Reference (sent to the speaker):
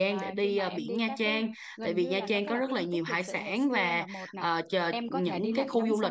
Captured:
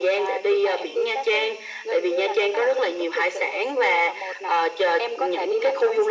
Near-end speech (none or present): none